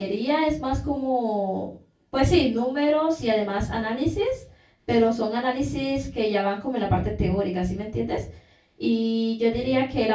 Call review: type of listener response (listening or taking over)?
listening